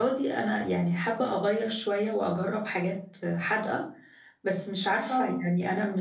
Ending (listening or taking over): listening